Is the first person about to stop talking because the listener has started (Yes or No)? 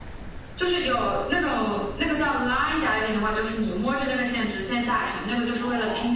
No